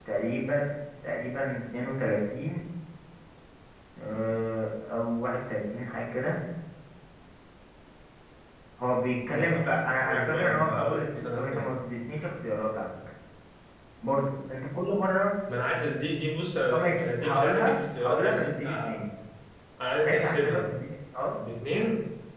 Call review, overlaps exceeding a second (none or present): present